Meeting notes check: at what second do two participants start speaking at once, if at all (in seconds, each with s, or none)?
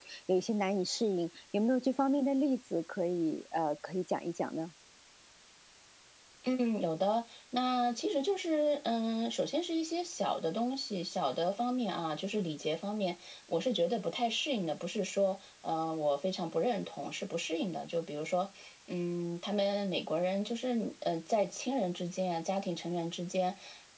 none